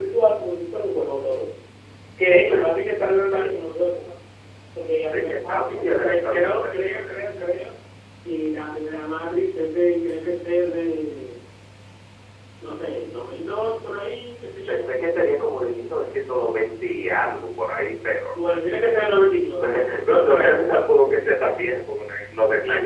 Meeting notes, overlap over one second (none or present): present